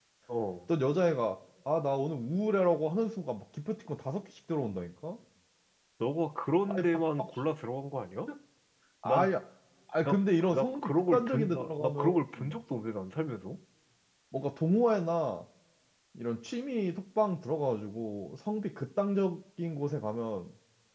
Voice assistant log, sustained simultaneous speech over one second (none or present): present